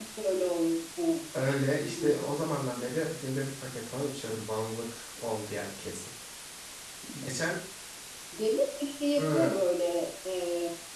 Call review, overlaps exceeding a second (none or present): none